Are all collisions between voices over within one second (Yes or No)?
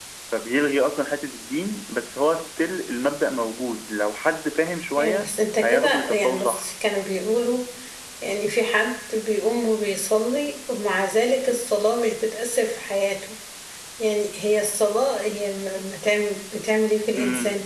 No